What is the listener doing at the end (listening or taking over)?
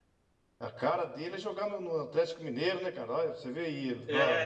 taking over